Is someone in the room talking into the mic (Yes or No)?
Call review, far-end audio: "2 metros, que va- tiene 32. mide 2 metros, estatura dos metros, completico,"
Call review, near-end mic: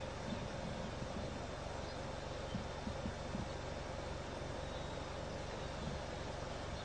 No